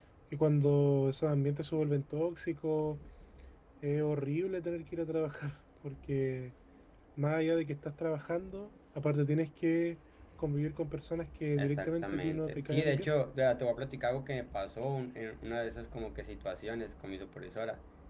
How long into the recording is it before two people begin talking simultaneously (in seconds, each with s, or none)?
11.6 s